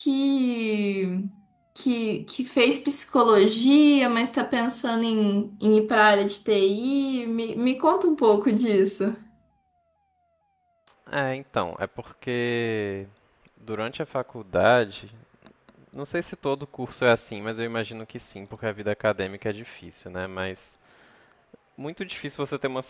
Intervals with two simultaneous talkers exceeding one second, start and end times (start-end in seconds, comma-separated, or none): none